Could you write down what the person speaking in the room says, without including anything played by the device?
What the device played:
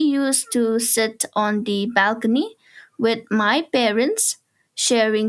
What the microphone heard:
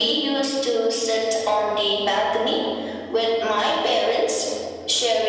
none

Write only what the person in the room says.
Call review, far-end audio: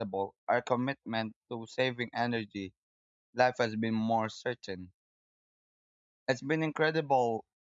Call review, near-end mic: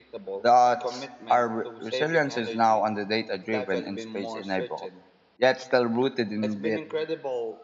That our re- resilience is now on the data driven and space enabled, yet still rooted in the

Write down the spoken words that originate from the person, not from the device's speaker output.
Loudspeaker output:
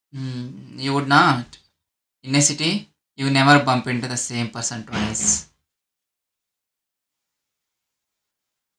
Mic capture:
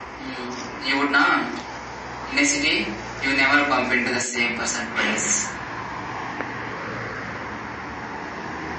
none

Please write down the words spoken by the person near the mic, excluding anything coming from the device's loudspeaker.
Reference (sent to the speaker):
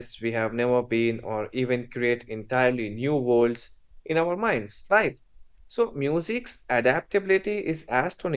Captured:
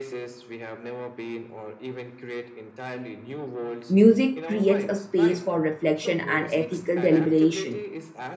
music creates a space for reflection and ethical deliberation.

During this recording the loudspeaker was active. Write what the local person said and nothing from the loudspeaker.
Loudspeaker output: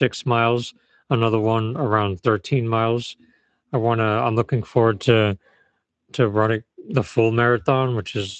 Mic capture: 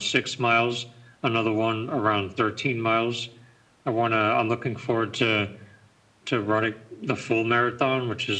none

